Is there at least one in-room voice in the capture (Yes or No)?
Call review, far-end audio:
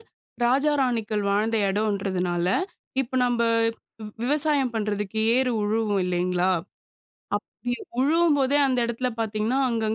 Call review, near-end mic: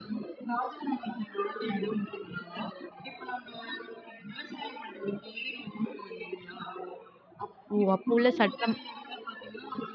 Yes